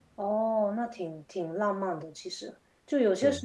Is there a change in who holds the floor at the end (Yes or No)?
No